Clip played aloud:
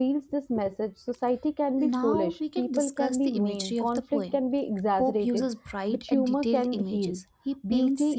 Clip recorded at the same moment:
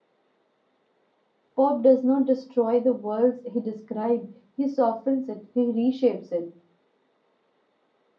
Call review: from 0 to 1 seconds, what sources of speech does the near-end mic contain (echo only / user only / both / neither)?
neither